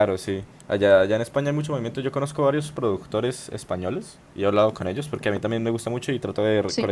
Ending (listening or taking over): listening